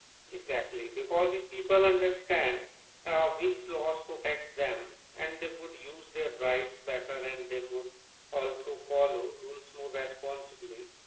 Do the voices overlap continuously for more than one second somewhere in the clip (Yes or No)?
No